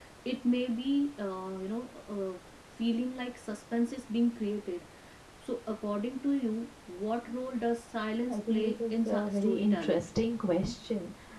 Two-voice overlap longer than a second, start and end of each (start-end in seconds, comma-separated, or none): 8.3-10.0